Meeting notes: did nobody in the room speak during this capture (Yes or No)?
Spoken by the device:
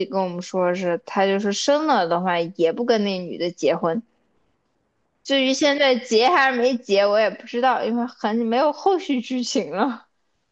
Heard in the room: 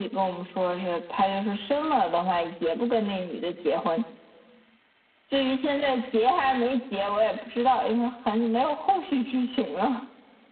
Yes